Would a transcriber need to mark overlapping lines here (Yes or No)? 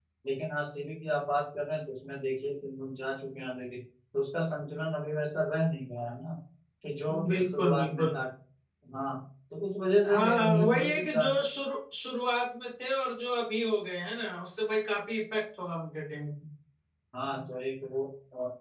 Yes